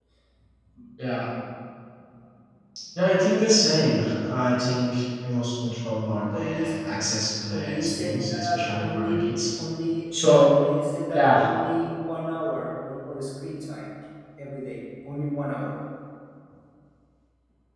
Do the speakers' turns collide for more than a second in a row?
Yes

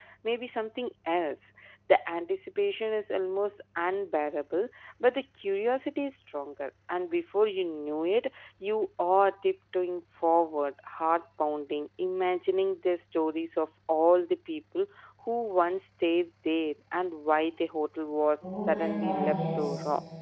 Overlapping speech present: Yes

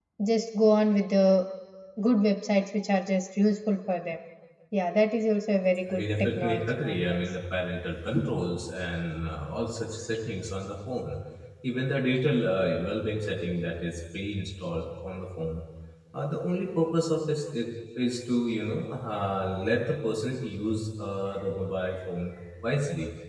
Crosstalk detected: Yes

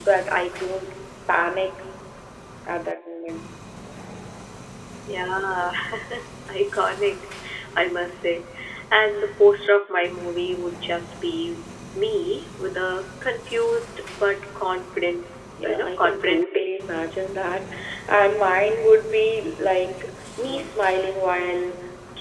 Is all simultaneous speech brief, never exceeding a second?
No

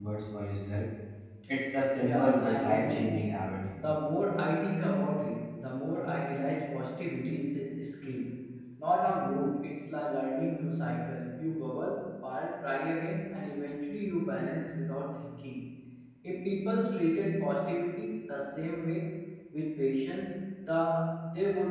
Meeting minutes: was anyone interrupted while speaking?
Yes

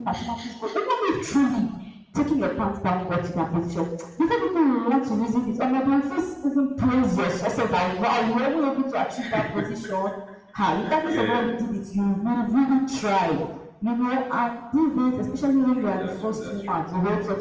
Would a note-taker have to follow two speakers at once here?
Yes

